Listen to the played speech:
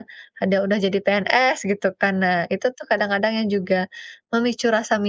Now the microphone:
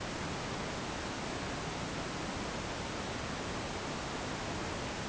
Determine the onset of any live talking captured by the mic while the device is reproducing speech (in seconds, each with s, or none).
none